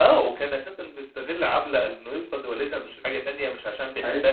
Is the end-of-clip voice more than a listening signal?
No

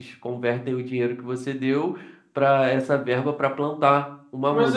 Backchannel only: No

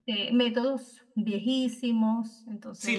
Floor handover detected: Yes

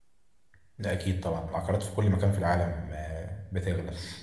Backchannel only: Yes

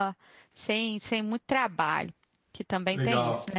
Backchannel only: No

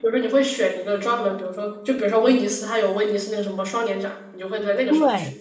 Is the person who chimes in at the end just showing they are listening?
No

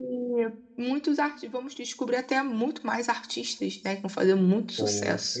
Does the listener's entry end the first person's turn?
Yes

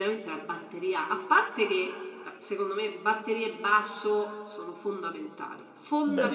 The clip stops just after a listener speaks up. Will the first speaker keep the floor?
Yes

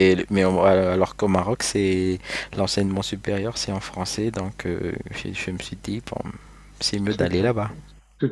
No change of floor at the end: No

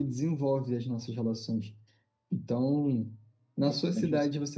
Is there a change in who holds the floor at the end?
No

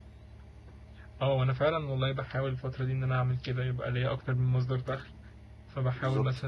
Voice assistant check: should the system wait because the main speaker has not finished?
Yes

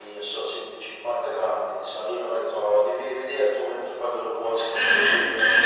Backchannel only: No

